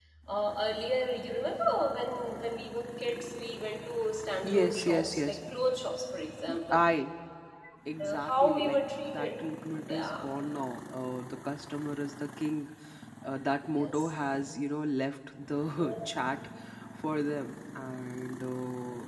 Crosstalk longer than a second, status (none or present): present